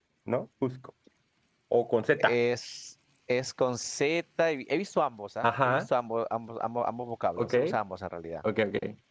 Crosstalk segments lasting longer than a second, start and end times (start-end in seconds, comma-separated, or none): none